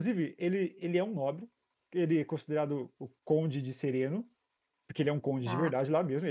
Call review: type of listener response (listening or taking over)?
listening